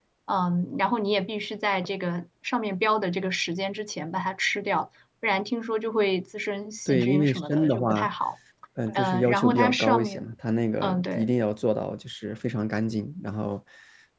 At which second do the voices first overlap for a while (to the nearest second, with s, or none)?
7 s